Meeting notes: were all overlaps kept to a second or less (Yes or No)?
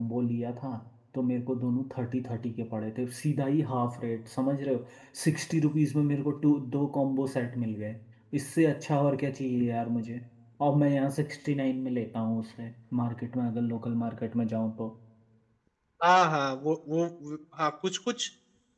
Yes